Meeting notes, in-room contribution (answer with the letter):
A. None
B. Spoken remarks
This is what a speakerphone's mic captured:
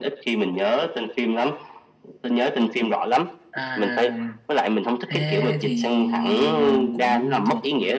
A